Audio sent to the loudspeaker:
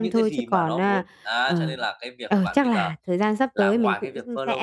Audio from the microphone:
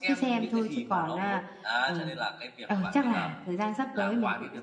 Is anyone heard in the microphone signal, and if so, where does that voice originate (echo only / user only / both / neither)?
echo only